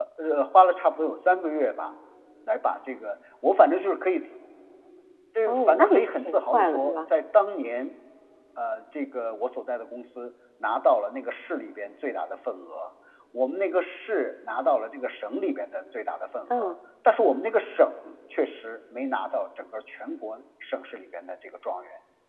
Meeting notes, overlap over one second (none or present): present